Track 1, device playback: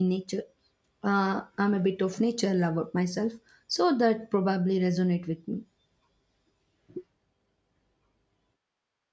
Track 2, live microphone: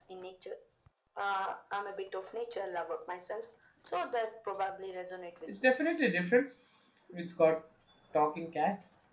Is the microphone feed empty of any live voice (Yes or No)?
No